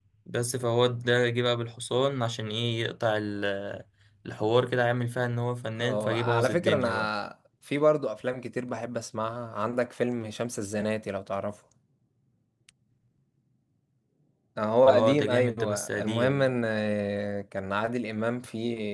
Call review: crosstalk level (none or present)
present